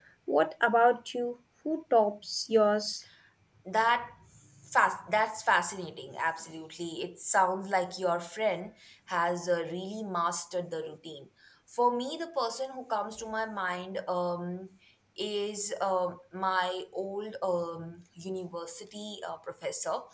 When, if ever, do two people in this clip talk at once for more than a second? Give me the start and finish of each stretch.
none

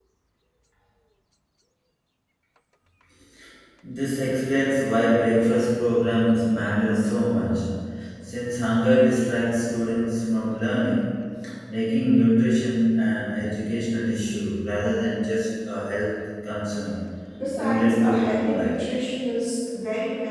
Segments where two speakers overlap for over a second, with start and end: 17.6-18.8

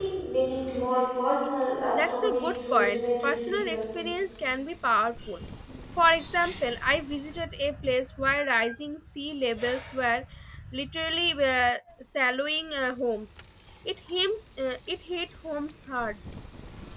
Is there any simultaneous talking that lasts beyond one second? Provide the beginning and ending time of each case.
1.9-3.9

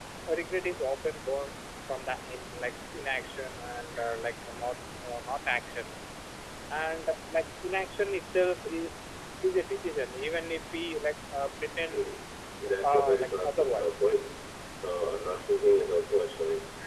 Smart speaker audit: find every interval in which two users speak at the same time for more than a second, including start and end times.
12.8-14.0

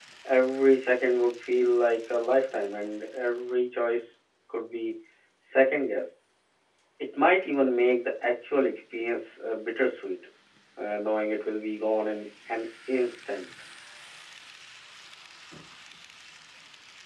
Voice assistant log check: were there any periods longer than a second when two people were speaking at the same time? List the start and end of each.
none

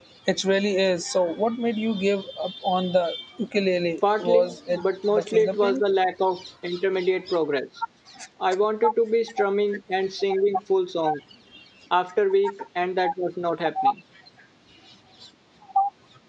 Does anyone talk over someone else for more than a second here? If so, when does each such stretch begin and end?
4.2-5.8

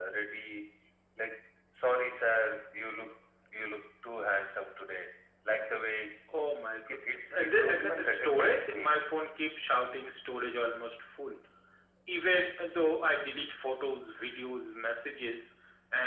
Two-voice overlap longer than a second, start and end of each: 6.9-9.0

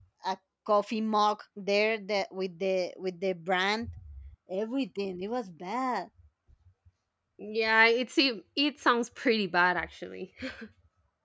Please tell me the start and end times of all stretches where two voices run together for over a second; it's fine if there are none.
none

